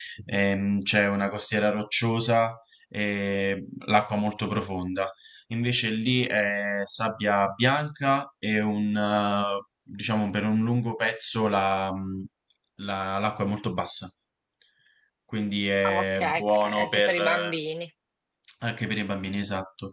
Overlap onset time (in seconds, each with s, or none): 15.8 s